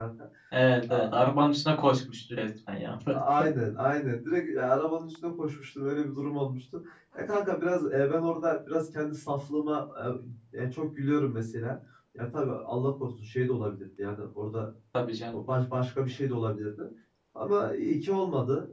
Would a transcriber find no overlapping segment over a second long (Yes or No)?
Yes